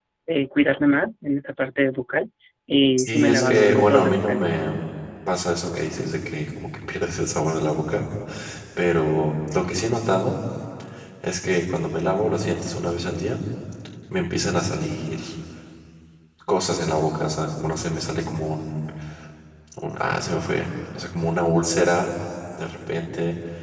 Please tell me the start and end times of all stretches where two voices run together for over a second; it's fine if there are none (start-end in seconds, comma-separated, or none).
3.0-4.5